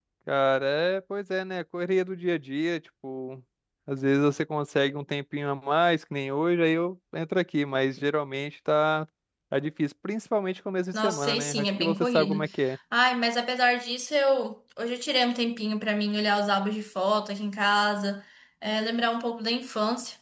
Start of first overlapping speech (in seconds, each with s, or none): 10.9 s